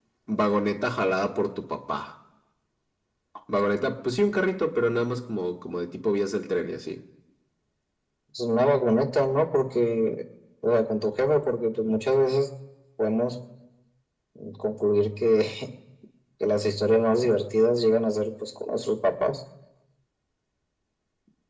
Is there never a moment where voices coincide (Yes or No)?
Yes